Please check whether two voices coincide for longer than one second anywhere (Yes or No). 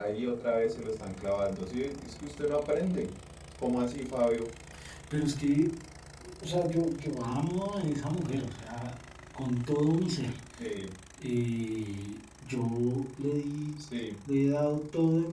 No